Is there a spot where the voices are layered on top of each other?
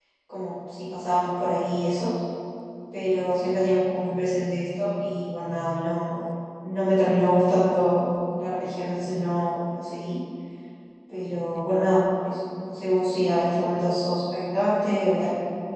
No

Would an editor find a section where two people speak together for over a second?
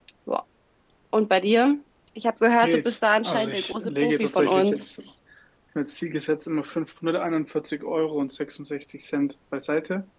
Yes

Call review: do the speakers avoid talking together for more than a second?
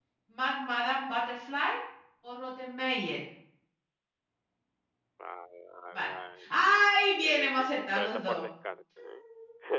No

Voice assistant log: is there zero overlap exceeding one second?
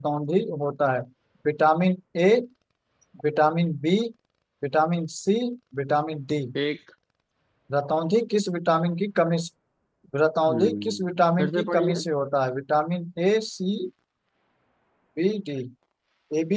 No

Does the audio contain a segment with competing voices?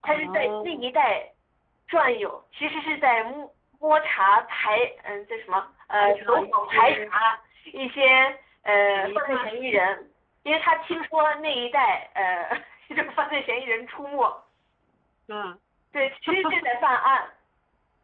Yes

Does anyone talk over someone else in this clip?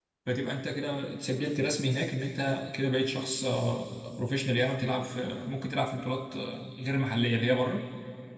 No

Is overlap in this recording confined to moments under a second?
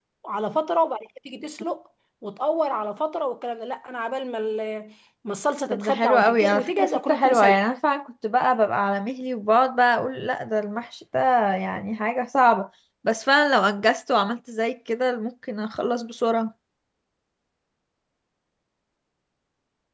No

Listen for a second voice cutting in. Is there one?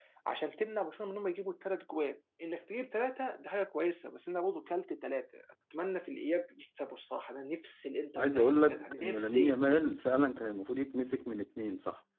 Yes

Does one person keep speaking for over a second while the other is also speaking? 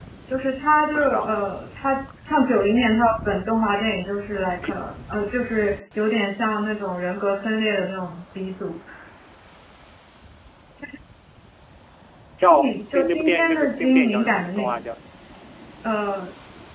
Yes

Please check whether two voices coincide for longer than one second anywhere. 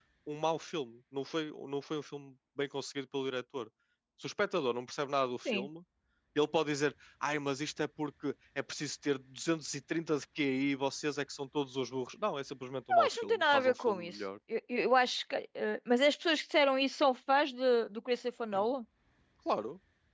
Yes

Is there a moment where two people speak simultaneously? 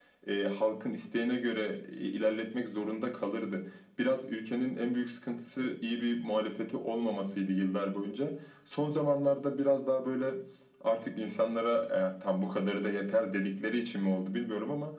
No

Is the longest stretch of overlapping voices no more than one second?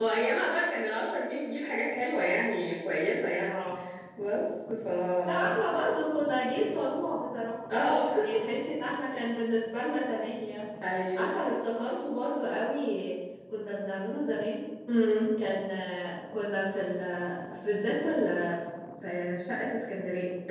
Yes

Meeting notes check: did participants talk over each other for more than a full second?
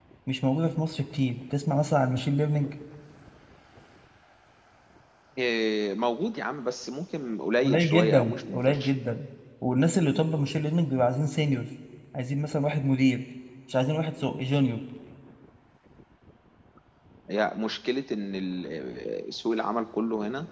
Yes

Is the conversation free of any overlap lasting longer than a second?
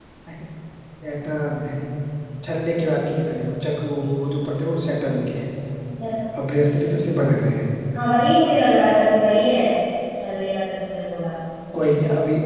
Yes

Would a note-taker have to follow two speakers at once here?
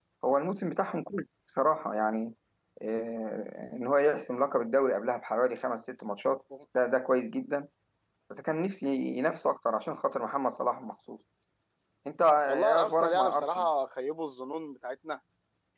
Yes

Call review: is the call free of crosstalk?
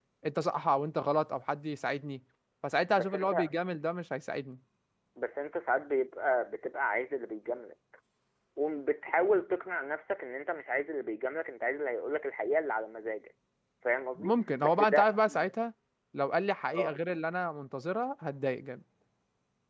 No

